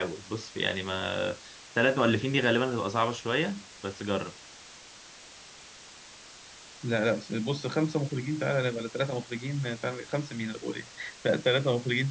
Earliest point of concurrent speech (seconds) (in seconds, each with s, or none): none